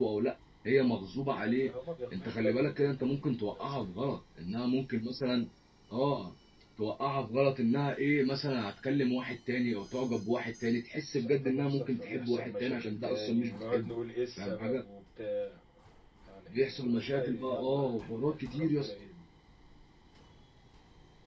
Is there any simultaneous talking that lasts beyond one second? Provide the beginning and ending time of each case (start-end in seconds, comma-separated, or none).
2.1-3.8, 11.1-13.9, 16.5-17.9